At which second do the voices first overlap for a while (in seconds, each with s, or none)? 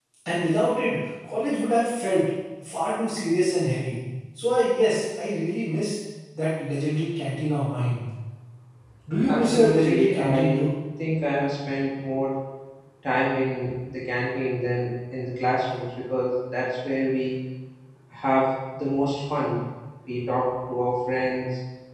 9.2 s